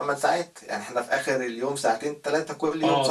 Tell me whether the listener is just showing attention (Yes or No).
No